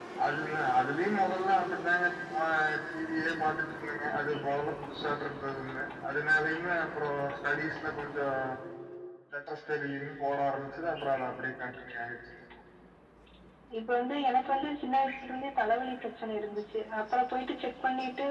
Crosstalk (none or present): none